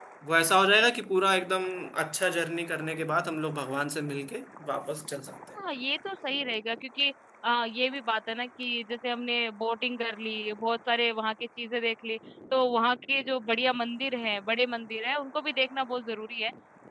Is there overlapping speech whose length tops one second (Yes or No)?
No